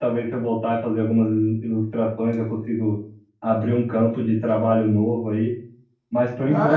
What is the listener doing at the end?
taking over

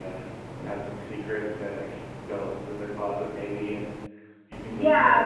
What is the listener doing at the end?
taking over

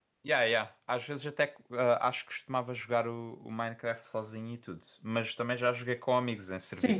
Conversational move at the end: taking over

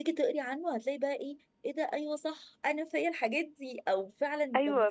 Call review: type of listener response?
taking over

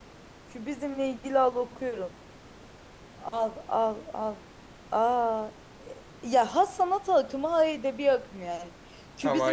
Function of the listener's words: listening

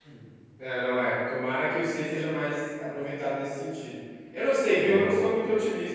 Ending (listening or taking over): listening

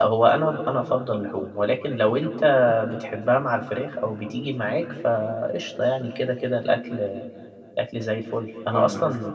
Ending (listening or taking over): listening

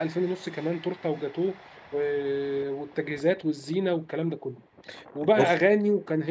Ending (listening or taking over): listening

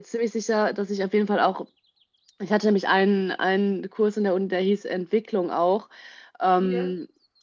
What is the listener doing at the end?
listening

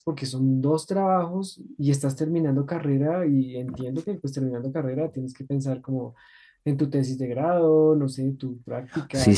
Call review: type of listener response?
taking over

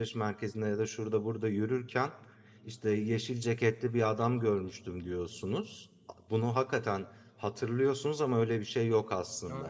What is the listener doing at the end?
taking over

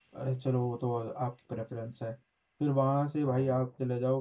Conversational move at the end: listening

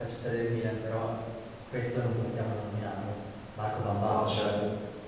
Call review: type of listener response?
taking over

